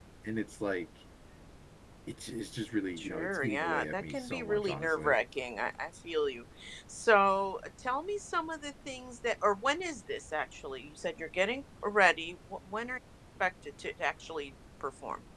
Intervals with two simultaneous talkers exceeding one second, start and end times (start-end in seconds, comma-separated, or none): 3.0-5.2